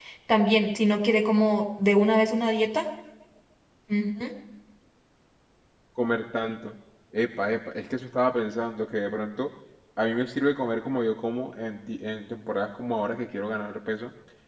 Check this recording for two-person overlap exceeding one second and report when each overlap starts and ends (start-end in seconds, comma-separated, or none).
none